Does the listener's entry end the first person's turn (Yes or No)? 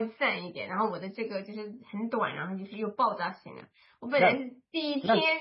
No